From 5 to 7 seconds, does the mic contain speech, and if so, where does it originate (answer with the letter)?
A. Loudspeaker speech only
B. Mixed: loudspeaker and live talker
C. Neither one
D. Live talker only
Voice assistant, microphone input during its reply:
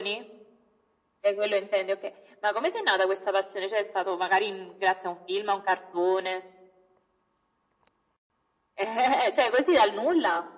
A